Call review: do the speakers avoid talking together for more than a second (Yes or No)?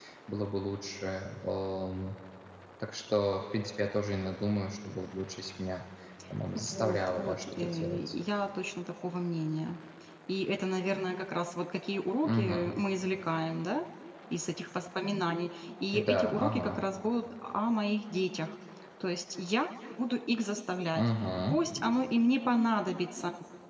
No